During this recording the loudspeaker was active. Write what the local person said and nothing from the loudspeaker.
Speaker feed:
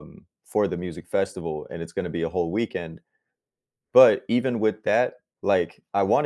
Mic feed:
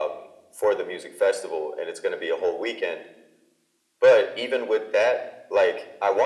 none

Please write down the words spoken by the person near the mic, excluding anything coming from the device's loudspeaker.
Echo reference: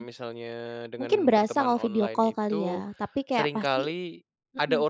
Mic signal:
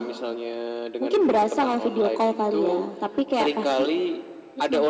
none

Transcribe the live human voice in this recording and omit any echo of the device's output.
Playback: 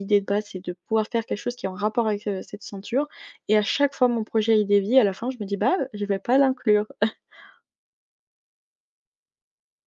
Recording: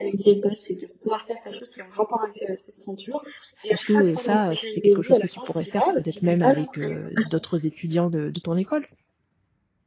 Est-ce que, heu, ça, heu, c'est quelque chose que tu pourrais faire, peut-être même avec, heu, d'autres étudiants de de ton école?

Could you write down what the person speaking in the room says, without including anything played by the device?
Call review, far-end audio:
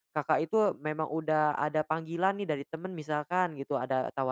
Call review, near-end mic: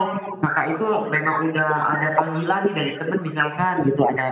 none

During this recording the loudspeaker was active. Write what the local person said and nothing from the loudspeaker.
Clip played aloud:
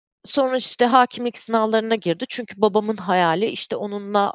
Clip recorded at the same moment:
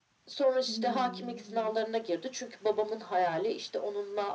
Hımm, evet.

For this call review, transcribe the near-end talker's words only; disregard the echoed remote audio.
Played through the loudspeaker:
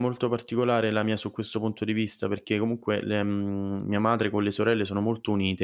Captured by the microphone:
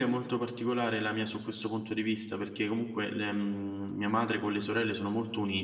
none

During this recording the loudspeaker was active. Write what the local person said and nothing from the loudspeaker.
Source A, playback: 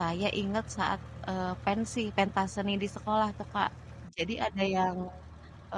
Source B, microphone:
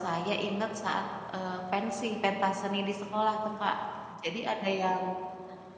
none

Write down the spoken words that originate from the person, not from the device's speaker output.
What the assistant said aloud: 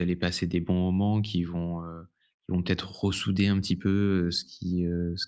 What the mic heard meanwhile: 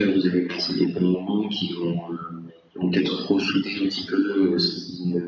none

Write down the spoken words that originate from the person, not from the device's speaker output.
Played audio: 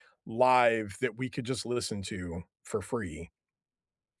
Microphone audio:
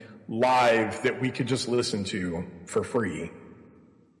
none

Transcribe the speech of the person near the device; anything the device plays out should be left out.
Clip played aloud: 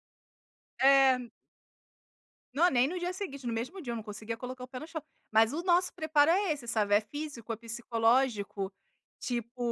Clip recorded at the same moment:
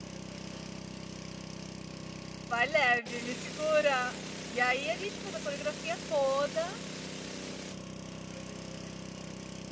vai leve, me segura". E aí a gente faz a coreografia toda,

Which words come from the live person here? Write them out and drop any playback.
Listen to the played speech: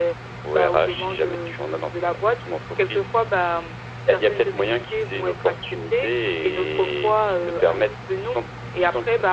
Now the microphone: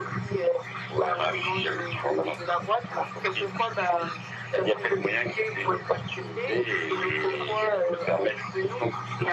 none

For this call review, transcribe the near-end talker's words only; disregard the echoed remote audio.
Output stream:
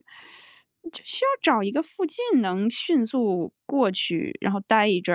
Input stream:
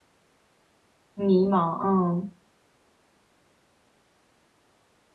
迷茫，嗯。

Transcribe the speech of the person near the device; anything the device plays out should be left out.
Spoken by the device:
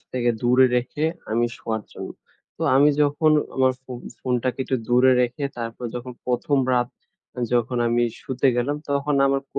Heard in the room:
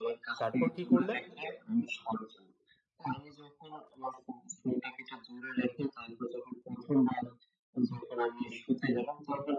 তারপর কি করলেন?

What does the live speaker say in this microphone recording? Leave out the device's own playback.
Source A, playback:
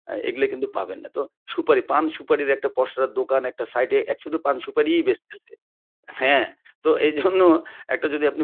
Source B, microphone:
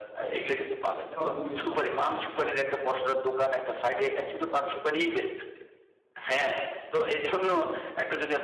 সবচেয়ে বেশি ভালো পাওয়া যায়। হ্যাঁ।

